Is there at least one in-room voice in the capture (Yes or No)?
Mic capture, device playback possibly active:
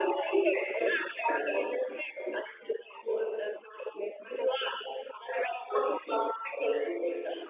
No